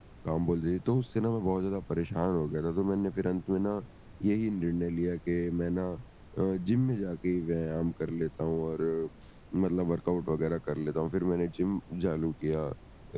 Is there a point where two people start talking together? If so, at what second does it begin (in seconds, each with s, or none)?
none